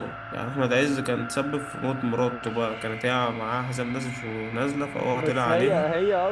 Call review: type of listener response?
taking over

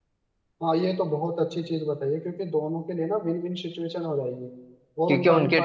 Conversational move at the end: taking over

